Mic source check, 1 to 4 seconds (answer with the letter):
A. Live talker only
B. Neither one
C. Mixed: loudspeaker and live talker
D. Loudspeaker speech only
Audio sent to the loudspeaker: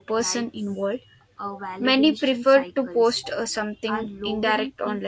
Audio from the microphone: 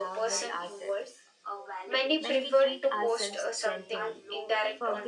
C